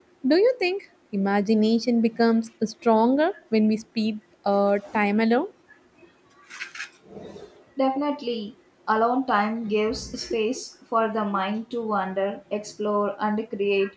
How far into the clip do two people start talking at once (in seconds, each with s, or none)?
none